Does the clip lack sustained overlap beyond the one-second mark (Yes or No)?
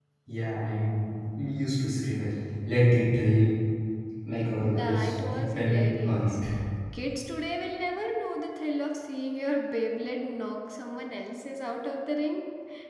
No